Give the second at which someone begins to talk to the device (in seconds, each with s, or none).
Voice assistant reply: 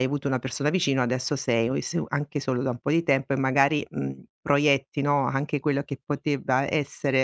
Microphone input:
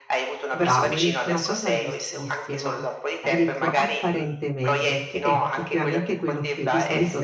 0.5 s